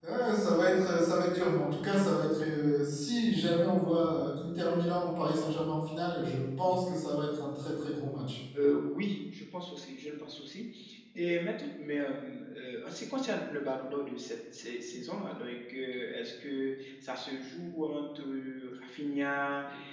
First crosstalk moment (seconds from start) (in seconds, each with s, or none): none